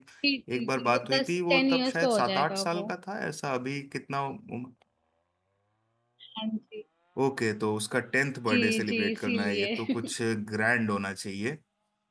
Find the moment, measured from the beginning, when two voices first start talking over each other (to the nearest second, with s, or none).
1 s